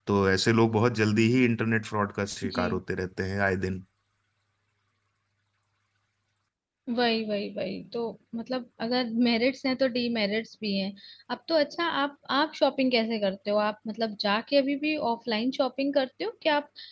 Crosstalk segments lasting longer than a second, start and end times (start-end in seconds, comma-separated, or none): none